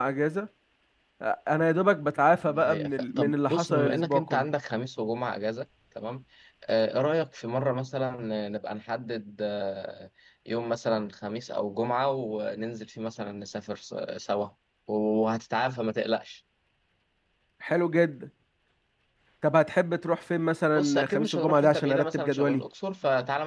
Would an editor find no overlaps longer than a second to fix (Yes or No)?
No